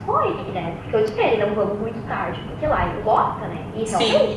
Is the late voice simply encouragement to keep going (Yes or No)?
Yes